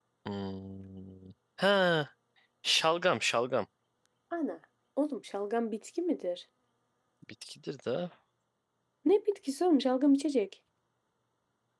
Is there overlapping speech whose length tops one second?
No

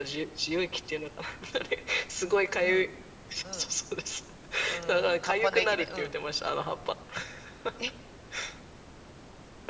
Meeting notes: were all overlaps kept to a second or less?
No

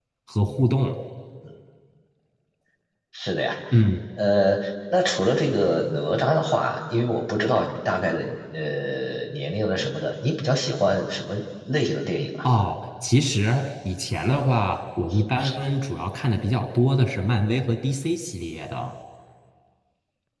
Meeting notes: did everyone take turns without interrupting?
Yes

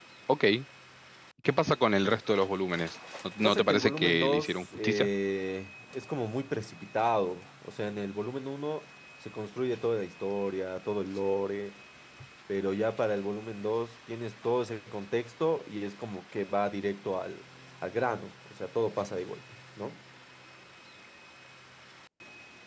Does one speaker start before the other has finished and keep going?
Yes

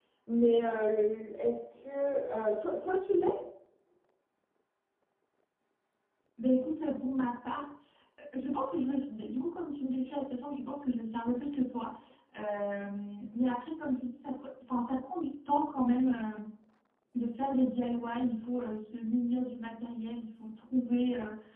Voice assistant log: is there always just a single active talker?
Yes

